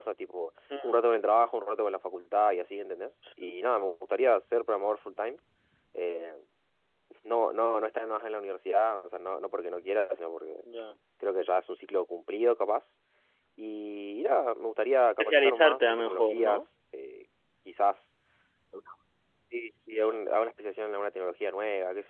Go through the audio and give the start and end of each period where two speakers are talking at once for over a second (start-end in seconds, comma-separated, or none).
15.2-16.6